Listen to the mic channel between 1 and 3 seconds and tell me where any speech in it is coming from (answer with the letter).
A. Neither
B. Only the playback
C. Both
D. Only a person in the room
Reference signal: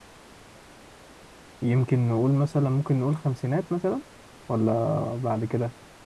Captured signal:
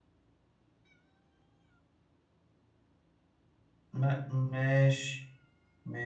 A